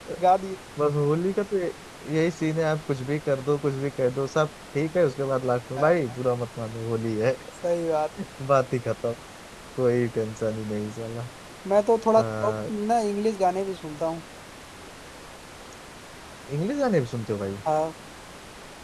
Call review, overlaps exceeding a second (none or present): none